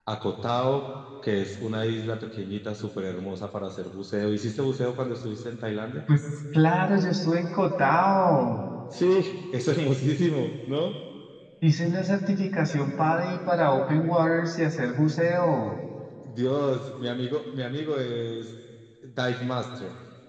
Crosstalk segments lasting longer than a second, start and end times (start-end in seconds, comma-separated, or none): none